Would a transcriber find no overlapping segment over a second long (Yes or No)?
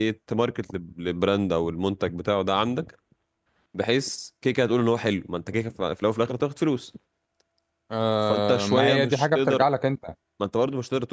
No